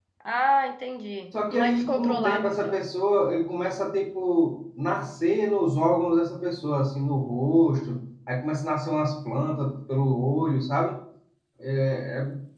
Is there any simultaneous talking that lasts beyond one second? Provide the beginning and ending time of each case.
1.5-2.8

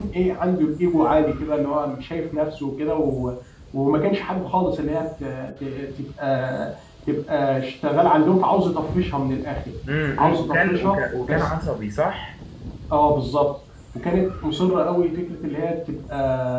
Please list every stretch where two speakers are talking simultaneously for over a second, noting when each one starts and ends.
10.2-11.5

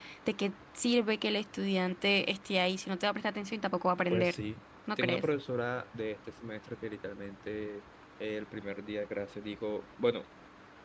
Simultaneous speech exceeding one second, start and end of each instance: none

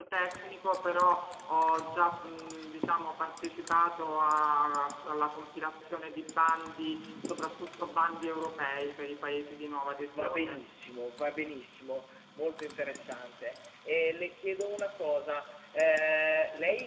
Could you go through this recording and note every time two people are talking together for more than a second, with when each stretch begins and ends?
none

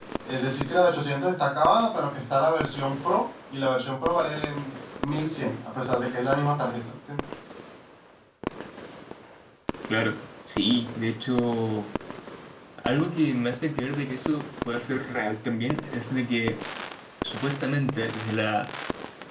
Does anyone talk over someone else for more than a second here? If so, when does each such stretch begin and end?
none

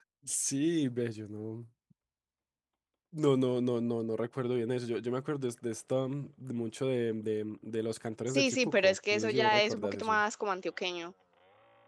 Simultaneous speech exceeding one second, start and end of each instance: 8.3-10.2

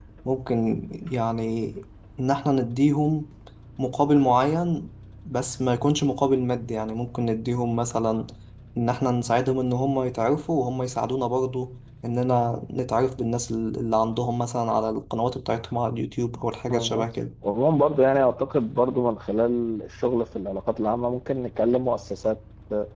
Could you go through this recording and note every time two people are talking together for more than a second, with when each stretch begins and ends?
none

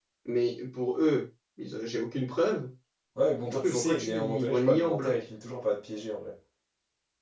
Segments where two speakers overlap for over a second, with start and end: 3.5-5.1

